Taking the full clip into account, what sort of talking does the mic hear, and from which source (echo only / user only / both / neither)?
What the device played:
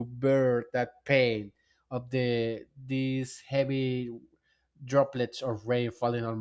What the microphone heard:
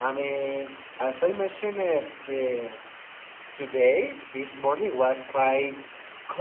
user only